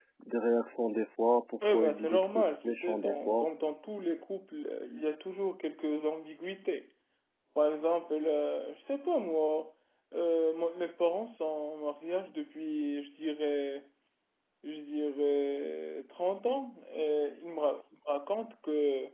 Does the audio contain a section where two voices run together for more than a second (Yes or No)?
Yes